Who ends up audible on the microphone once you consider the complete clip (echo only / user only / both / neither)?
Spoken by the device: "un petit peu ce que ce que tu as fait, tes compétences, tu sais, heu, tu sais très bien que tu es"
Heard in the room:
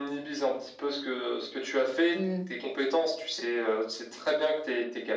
both